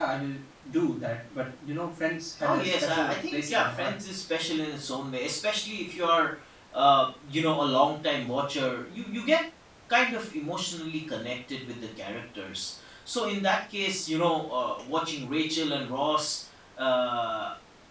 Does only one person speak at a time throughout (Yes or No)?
No